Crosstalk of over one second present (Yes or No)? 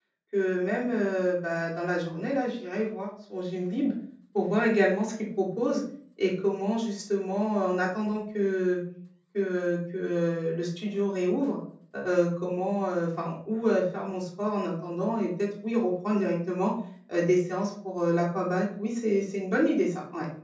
No